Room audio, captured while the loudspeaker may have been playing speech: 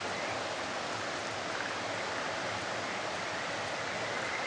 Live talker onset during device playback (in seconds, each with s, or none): none